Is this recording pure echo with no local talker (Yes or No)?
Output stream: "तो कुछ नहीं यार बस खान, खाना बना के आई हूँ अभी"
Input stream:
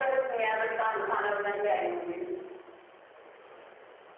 Yes